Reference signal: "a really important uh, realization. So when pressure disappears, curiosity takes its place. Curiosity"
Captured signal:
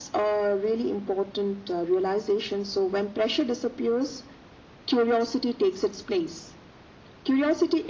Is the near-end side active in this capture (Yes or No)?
No